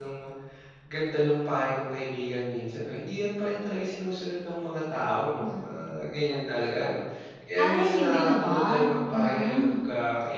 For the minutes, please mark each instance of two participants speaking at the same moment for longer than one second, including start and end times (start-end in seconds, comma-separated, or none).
7.6-9.8